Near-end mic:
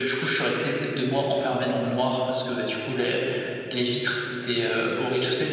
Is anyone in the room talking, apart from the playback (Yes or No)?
No